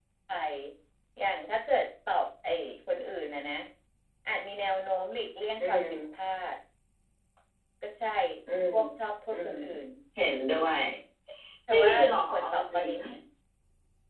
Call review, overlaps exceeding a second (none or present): present